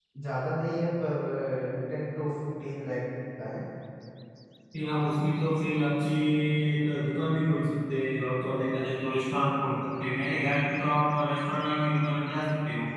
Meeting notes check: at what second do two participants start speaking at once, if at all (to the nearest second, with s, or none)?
none